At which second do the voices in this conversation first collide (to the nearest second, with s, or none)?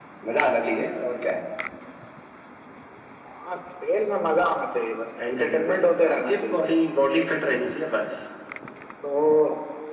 5 s